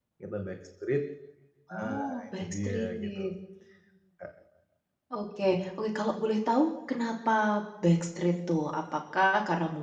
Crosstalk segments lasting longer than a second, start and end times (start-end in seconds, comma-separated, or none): 1.7-3.3